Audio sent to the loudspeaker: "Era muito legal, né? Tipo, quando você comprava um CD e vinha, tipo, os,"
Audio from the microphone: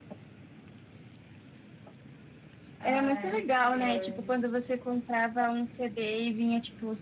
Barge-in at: 2.8 s

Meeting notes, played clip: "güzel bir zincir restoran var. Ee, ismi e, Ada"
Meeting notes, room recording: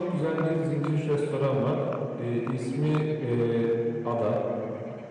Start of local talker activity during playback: none

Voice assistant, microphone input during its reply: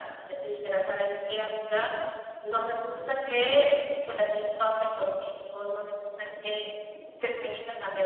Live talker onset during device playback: none

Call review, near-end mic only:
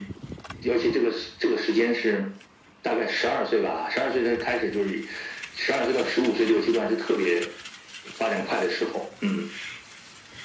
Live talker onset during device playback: none

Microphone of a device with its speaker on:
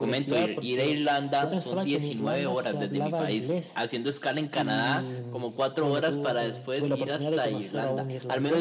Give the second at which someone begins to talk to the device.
none

